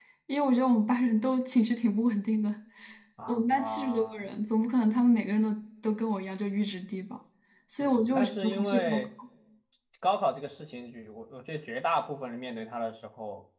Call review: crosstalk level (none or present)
present